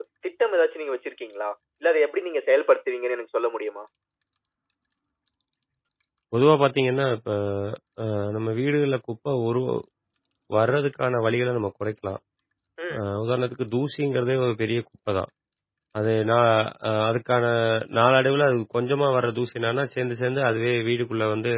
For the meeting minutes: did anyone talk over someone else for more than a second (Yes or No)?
No